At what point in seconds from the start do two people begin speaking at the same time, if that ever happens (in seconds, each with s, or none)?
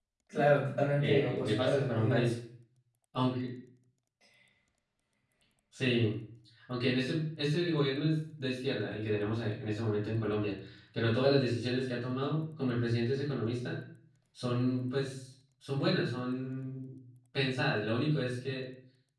1.0 s